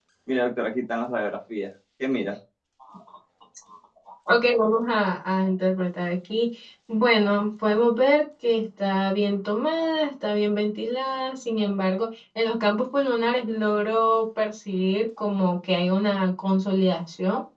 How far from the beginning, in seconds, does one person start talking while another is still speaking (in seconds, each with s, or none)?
none